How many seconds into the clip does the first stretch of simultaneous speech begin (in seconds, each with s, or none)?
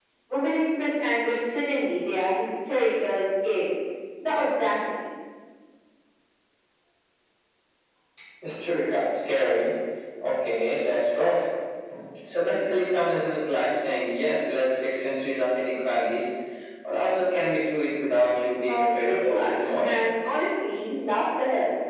18.6 s